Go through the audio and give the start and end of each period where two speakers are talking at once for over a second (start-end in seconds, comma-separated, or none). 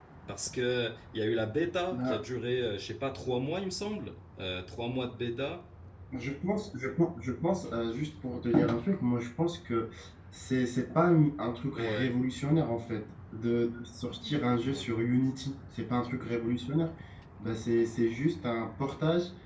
none